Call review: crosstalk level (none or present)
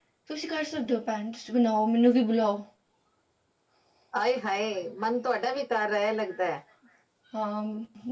none